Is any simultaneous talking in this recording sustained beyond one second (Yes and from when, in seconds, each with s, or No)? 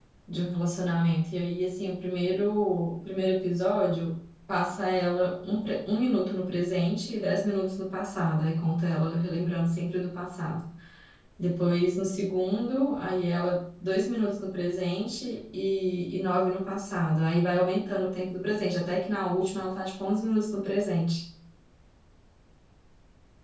No